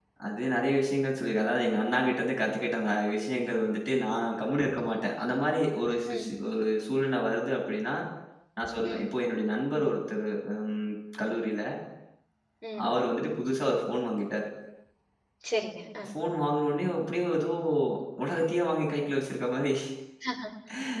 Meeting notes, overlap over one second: none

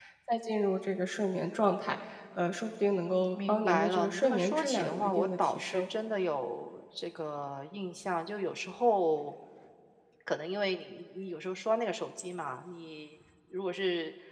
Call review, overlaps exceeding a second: present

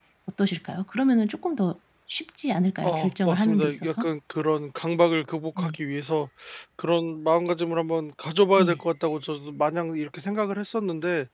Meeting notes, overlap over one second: present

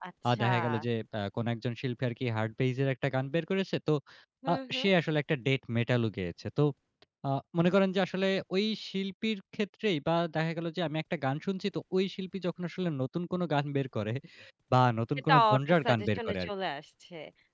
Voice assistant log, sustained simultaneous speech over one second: present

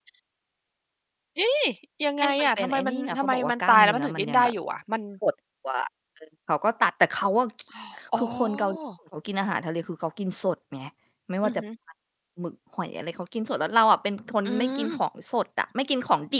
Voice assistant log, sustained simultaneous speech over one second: present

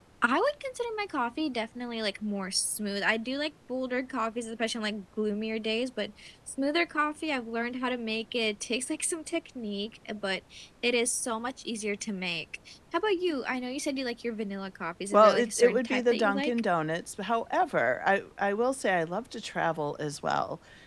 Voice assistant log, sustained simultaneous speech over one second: present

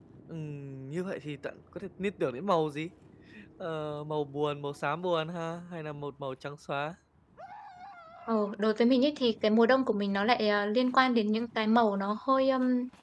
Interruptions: none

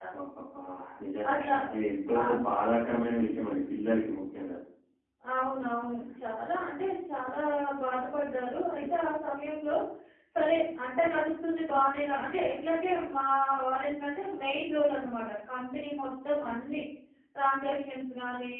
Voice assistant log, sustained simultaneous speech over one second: none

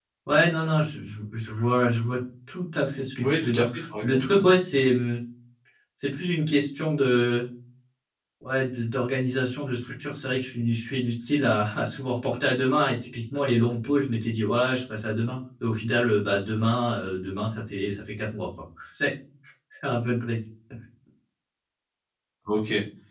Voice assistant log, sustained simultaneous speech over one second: present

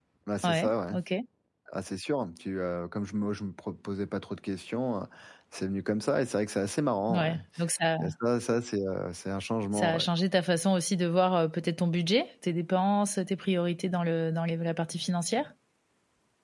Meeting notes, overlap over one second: none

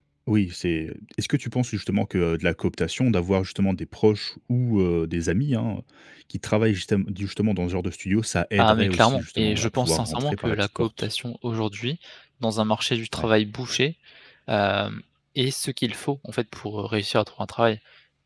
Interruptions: present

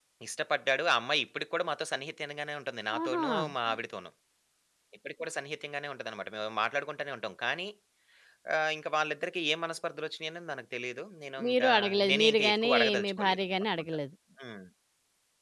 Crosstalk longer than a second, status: present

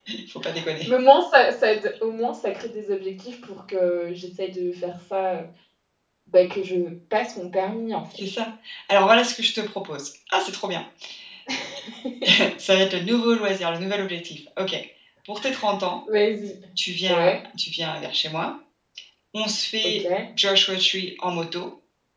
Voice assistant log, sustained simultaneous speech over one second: none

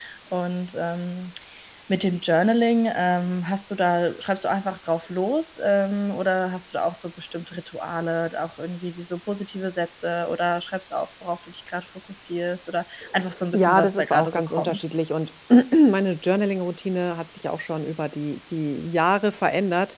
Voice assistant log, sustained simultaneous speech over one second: present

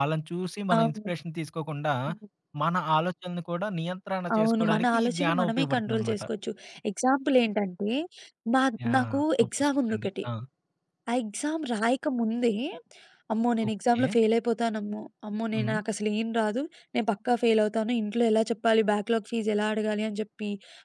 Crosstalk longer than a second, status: present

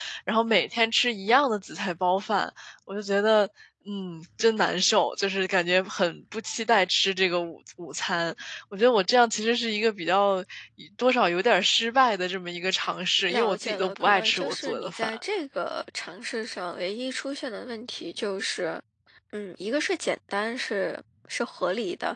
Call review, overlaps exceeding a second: present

